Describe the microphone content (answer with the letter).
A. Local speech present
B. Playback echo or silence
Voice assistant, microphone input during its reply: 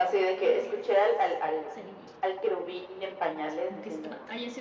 A